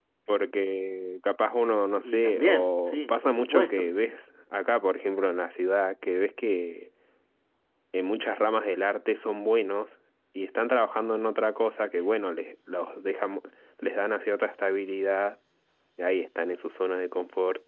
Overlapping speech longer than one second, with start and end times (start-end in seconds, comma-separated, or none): 2.0-4.1